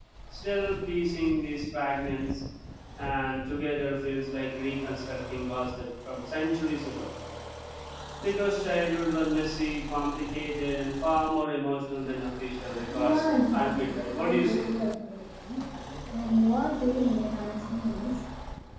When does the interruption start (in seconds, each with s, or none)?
12.9 s